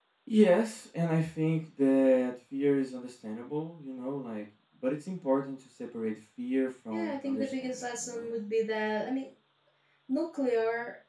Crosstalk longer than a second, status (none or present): present